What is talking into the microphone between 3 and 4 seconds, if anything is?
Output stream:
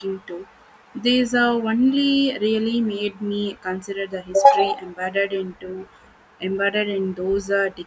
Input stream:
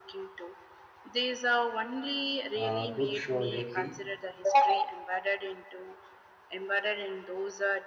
both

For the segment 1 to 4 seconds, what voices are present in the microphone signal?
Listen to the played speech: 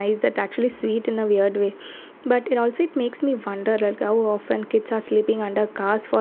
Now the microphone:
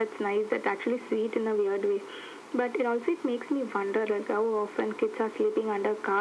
echo only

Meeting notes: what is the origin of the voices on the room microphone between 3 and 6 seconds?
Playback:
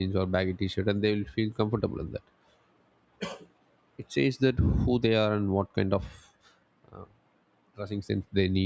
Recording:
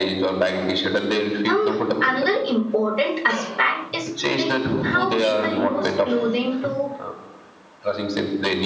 both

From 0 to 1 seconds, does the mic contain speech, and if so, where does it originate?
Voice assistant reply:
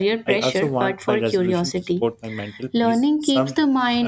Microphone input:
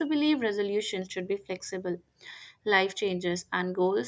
user only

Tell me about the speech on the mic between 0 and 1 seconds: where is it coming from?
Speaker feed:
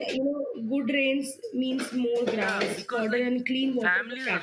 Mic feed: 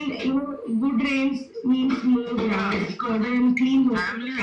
echo only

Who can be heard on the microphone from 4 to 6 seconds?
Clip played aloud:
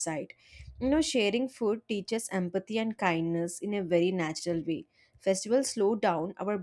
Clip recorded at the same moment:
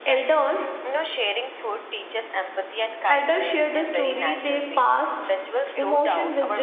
both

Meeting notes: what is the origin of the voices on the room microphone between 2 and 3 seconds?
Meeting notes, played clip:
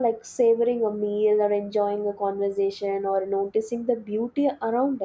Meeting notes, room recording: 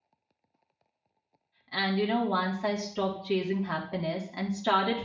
user only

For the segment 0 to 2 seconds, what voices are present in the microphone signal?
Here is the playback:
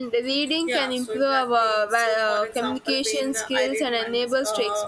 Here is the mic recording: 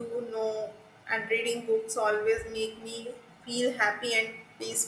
user only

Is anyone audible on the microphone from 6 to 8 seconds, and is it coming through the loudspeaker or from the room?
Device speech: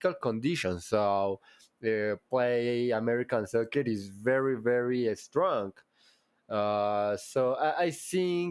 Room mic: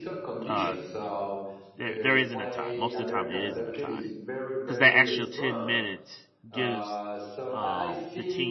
both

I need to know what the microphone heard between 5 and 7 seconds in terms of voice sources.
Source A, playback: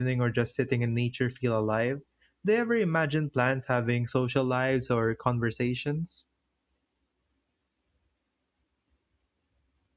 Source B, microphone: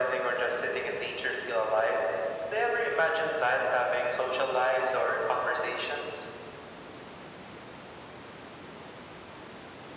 echo only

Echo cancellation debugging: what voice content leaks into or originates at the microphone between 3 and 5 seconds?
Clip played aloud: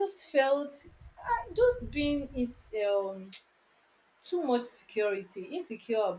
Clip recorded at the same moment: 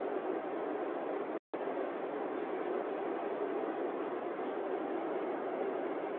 neither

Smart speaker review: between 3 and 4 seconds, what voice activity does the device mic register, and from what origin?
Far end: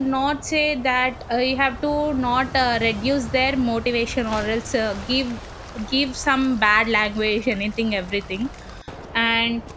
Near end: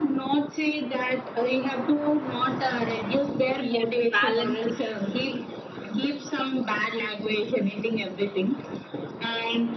both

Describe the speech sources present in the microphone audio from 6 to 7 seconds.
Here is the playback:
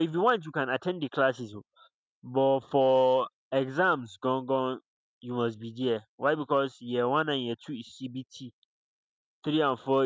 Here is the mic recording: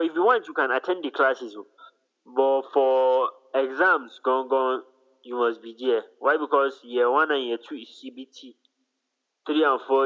echo only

